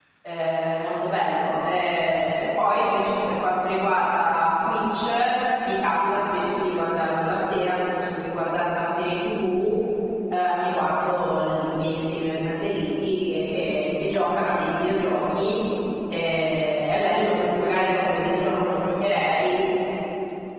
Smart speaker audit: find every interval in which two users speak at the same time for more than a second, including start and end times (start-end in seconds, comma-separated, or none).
17.2-18.9